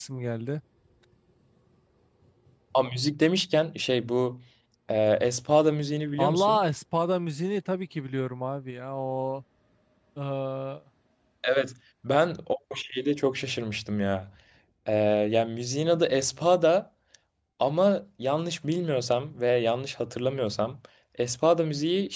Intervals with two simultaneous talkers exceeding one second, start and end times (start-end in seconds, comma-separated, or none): none